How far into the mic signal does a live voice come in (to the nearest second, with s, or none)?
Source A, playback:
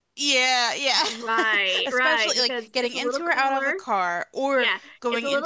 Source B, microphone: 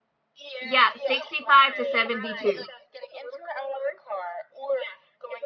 1 s